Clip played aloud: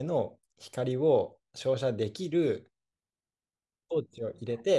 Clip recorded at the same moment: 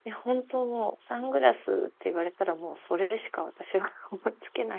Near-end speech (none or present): present